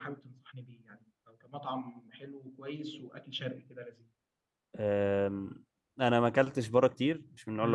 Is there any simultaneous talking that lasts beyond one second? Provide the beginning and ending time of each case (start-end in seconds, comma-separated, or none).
none